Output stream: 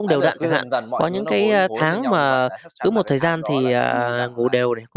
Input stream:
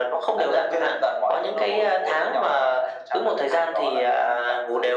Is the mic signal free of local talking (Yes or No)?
Yes